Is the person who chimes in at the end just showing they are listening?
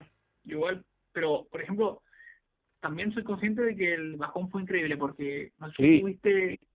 Yes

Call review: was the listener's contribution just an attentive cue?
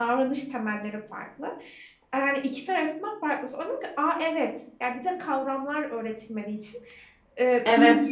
Yes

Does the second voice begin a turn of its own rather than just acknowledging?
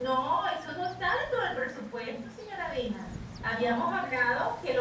No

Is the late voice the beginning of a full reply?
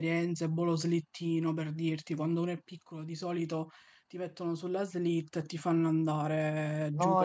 Yes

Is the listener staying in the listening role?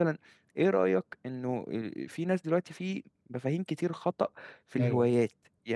Yes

